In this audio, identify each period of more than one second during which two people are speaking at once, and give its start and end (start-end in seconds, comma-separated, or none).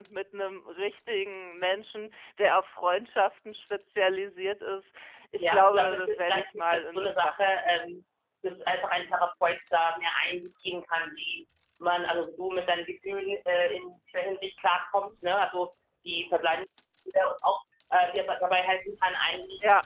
5.4-7.9